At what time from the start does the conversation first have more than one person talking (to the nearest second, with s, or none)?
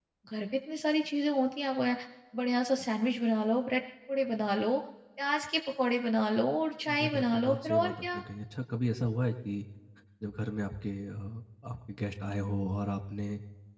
7 s